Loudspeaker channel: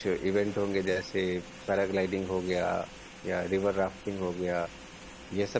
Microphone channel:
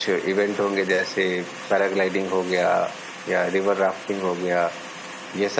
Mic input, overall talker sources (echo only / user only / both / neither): echo only